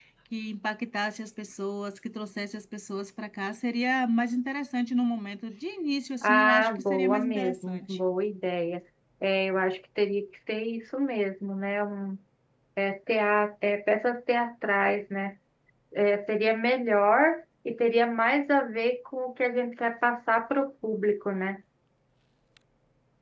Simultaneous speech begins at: 6 s

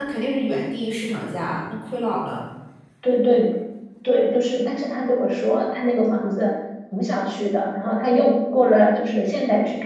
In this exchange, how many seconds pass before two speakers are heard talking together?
none

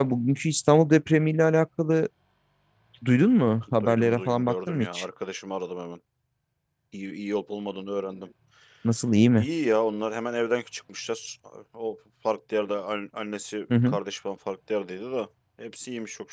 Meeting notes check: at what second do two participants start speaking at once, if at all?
4 s

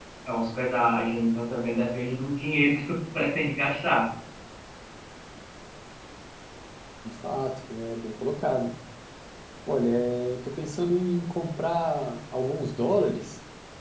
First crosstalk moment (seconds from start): none

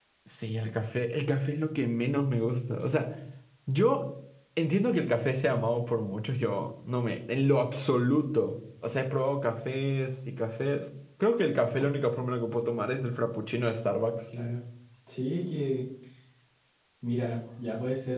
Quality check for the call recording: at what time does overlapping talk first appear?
none

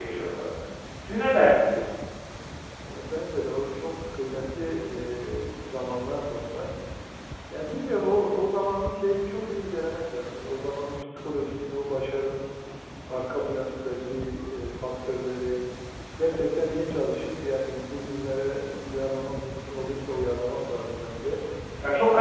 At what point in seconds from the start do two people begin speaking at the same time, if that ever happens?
none

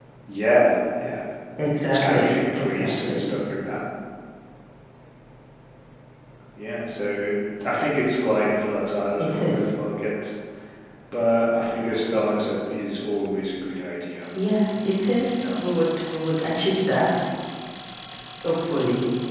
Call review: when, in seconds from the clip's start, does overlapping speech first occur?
2 s

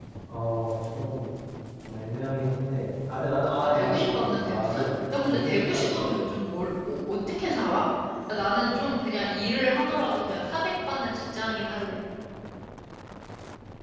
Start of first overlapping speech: 4 s

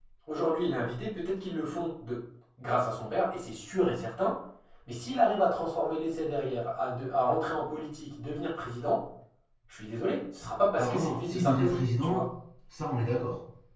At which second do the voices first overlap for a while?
11 s

